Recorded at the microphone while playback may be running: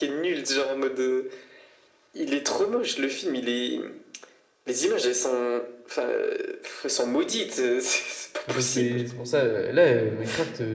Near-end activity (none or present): present